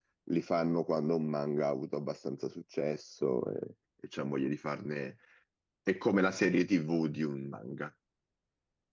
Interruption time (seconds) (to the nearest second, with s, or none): none